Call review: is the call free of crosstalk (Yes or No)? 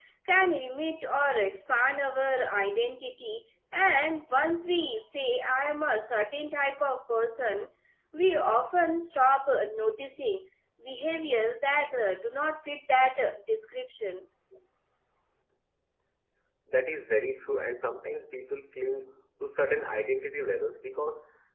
Yes